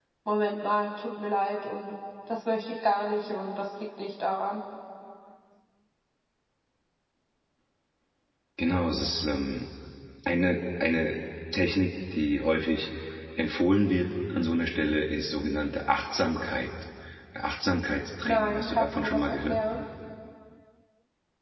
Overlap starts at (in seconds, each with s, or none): 18.2 s